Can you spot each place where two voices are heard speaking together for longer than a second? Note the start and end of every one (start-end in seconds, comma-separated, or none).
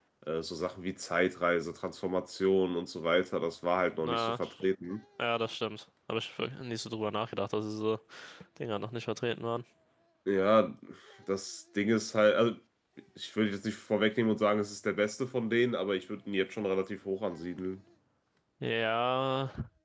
none